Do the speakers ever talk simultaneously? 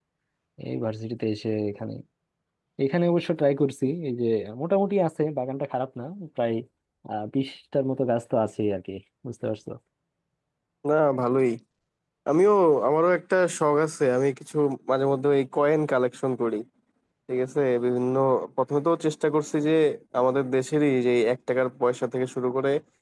No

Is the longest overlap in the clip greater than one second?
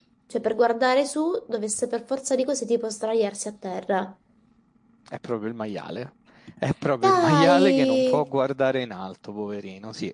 Yes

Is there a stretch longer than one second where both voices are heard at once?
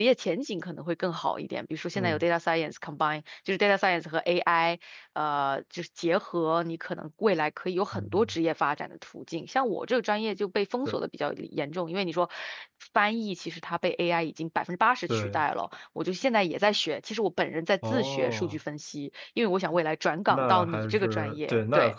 Yes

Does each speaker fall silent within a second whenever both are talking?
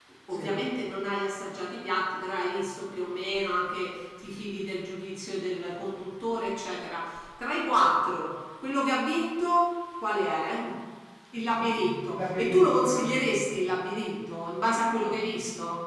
No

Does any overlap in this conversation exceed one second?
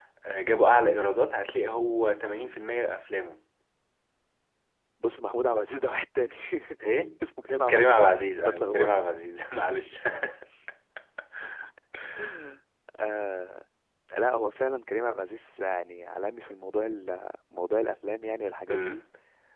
Yes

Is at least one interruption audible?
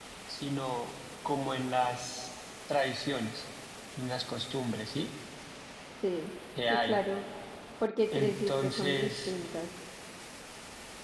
Yes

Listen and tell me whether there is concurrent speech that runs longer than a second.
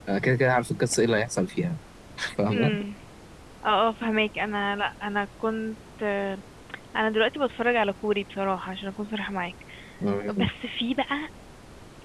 No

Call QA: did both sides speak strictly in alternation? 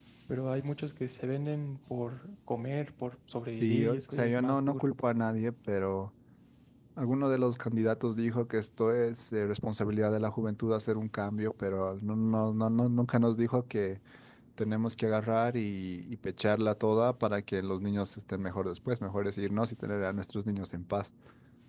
No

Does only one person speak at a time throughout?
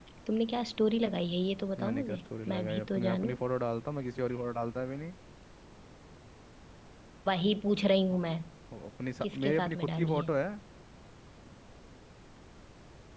No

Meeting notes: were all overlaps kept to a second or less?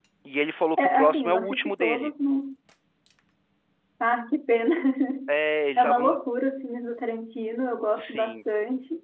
No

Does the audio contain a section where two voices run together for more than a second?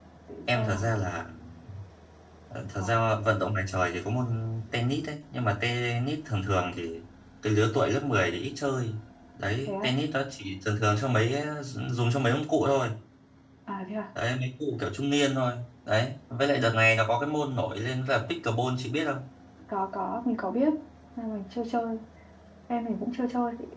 No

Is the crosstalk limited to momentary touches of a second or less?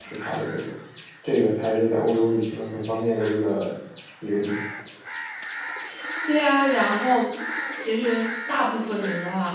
Yes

